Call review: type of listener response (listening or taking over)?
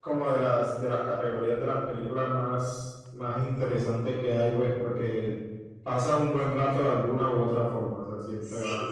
taking over